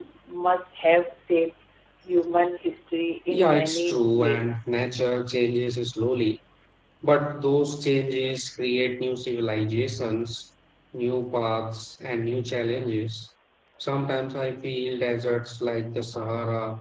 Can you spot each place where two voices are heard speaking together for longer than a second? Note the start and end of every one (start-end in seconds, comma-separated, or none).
3.3-4.6